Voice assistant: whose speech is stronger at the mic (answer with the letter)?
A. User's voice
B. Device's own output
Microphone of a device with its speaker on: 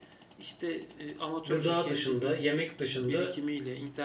A